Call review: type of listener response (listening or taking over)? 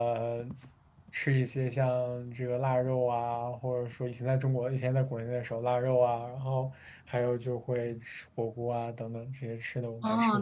taking over